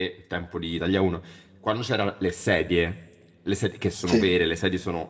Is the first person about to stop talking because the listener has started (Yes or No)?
No